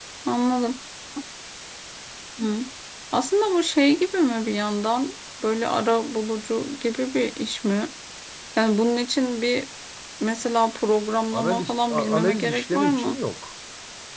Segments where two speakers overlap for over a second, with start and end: 11.3-13.2

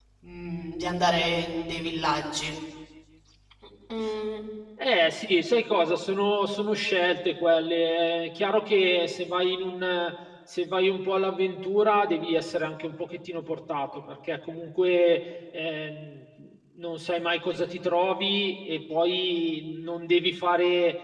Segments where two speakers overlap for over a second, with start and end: none

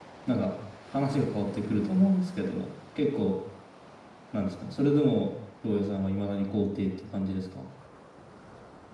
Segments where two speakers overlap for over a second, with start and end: none

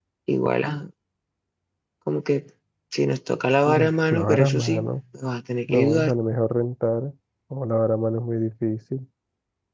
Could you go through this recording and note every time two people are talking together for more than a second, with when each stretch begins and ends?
3.7-4.9

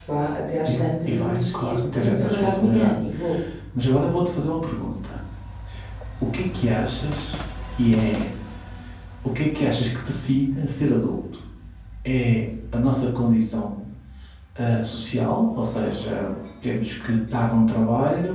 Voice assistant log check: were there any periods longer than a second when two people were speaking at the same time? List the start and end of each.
1.1-3.0

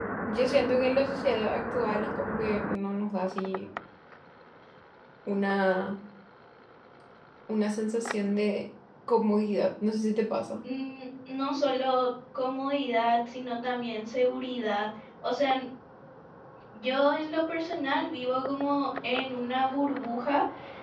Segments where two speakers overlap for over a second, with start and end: none

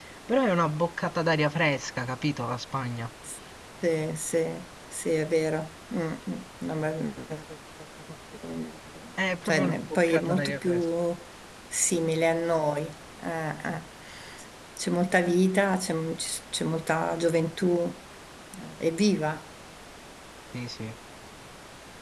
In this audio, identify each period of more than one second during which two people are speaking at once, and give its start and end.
9.4-10.8

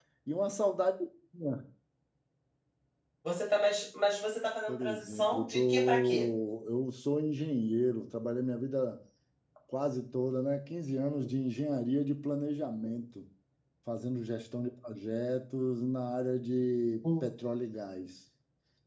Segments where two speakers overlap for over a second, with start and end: 4.7-6.3

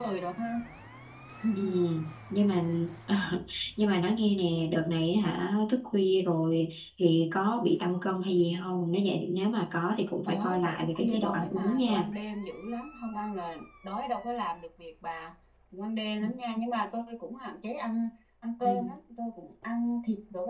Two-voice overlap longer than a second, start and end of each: 10.3-12.1

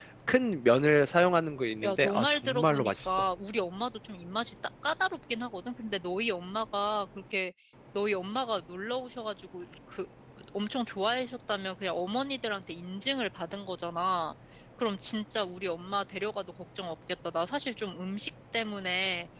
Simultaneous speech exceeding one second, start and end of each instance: 1.8-3.2

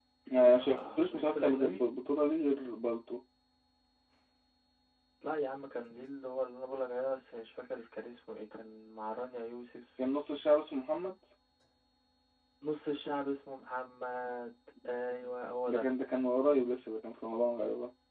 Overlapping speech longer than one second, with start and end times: 0.6-1.8

